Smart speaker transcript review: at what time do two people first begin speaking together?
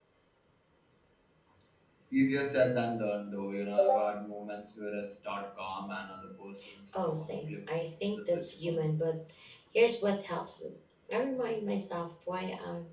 7.0 s

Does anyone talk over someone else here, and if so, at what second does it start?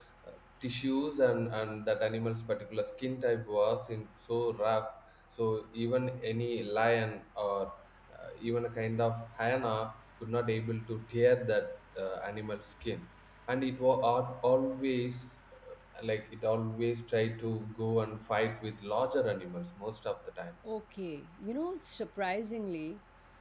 none

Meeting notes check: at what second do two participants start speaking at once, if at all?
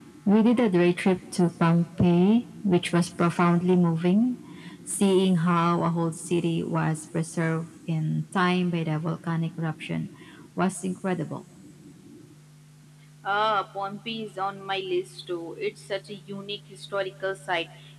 none

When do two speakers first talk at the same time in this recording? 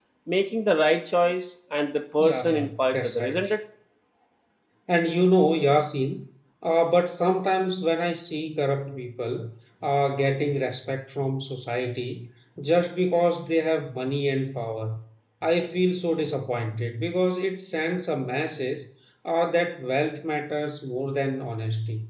2.2 s

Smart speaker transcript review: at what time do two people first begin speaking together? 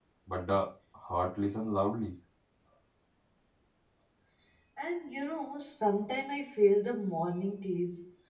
none

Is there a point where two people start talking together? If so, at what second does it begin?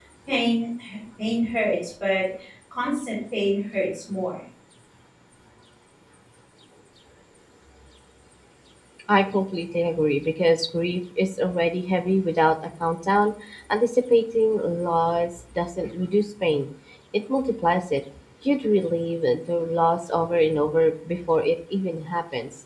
none

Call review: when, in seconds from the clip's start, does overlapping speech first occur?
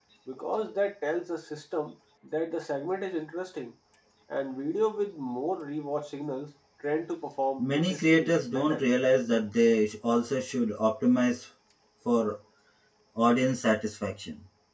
7.6 s

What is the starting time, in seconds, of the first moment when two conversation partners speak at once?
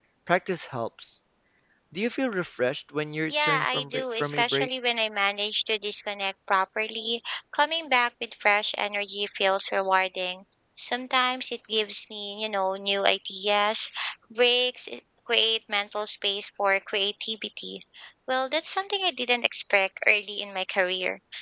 3.3 s

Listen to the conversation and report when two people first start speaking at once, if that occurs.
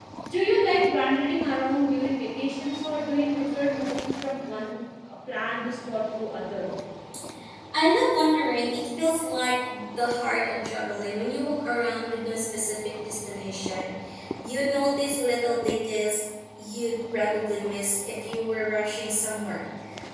none

